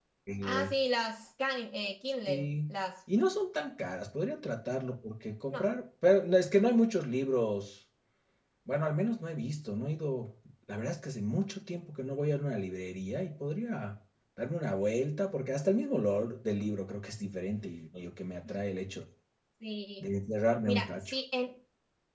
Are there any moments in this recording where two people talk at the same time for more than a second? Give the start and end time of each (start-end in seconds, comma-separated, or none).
none